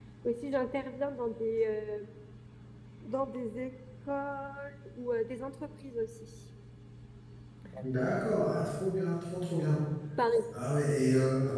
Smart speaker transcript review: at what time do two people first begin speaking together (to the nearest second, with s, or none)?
none